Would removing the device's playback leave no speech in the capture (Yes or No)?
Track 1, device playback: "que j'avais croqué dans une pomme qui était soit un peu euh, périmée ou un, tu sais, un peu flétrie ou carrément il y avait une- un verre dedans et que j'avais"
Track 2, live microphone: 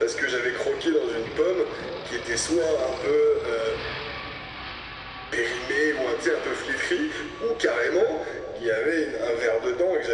Yes